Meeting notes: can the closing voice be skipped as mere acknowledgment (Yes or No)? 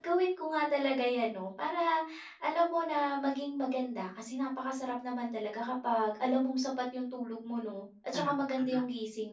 Yes